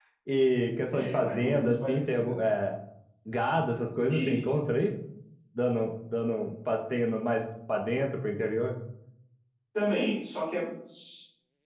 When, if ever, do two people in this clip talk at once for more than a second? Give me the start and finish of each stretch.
0.9-2.4

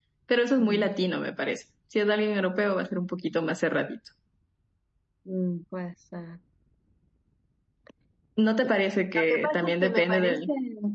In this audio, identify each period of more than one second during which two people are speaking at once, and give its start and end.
9.2-10.4

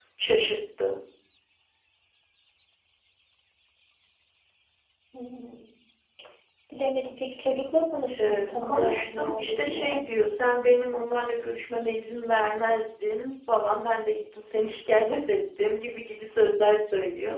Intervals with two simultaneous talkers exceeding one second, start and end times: 8.2-10.0

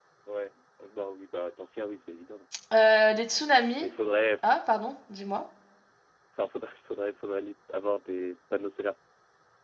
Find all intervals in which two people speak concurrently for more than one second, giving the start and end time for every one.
none

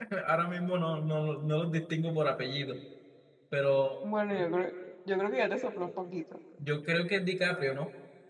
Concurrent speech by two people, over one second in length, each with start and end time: none

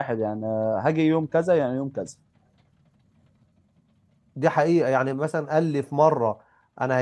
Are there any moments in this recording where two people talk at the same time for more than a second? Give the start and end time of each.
none

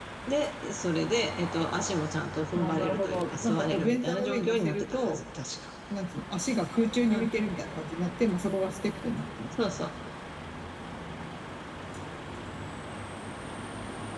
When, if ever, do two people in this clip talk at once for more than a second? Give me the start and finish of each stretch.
2.5-5.2

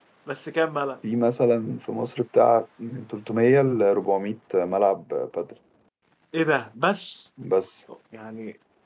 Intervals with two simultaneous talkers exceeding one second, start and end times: none

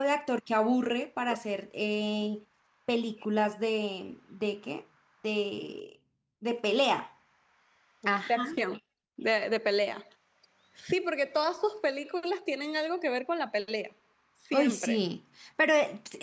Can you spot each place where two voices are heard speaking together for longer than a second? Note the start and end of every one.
none

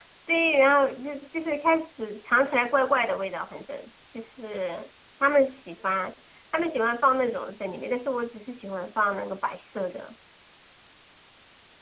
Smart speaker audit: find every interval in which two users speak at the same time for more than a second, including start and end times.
none

